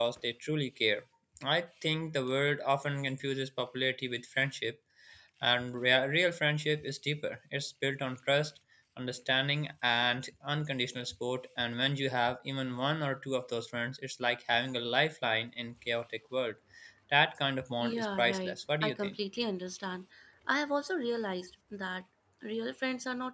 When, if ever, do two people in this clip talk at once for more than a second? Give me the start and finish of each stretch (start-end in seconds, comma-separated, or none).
17.8-19.1